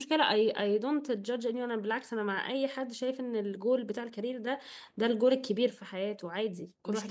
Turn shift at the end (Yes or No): Yes